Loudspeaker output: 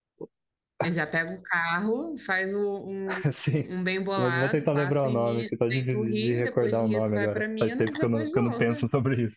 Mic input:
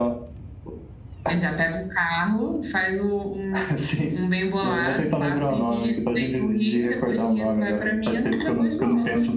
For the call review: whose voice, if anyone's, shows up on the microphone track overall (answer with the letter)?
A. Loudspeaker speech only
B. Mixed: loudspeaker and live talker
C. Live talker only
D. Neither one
A